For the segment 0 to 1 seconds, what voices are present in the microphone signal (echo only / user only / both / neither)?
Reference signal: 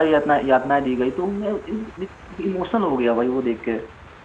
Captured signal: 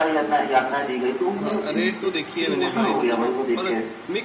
echo only